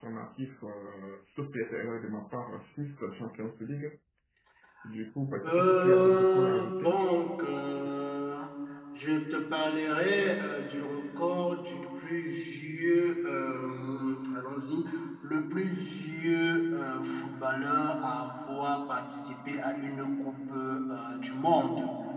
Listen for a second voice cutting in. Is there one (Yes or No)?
Yes